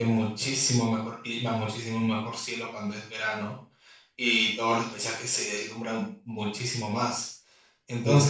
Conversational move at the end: listening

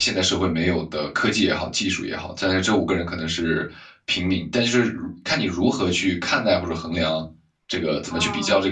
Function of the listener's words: taking over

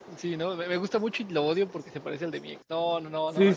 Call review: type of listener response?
taking over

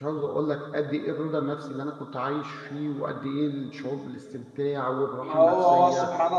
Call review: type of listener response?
taking over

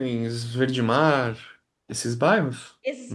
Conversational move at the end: taking over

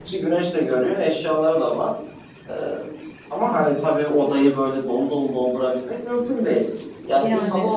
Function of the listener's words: listening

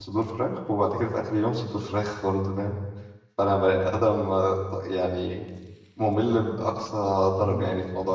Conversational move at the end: taking over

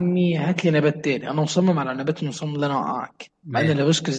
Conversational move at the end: listening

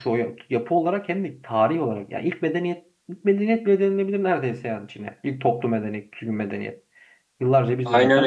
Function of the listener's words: taking over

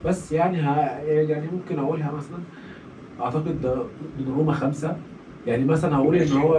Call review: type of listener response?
listening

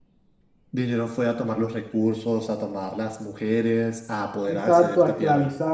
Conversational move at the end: taking over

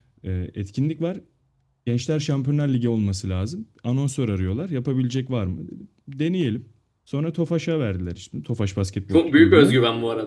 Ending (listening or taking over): taking over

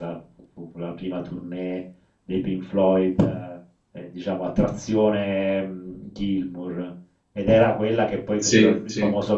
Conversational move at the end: listening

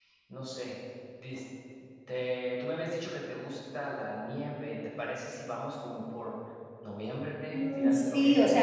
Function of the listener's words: taking over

